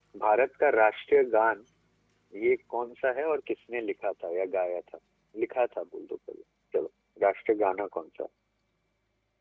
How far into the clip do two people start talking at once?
none

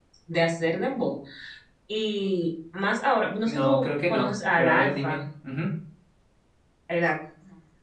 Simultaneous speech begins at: 3 s

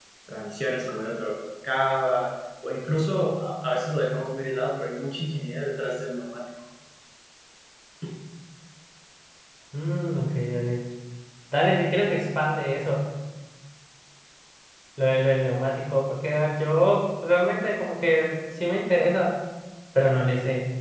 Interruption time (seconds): none

